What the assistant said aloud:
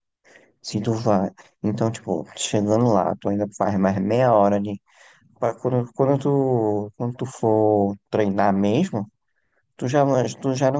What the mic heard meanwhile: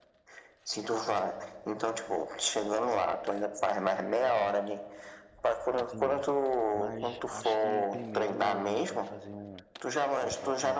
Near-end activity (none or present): present